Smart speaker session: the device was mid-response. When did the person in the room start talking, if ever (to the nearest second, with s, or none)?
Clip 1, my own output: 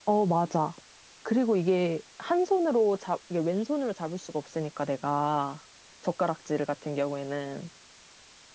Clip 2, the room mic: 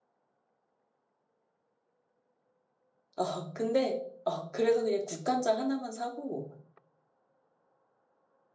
3 s